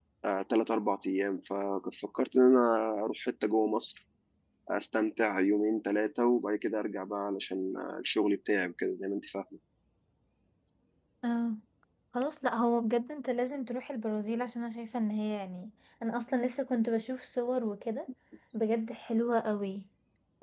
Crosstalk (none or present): none